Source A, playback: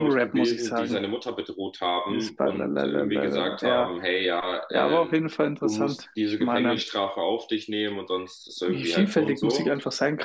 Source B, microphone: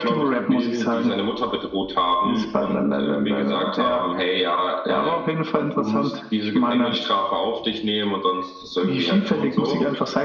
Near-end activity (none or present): none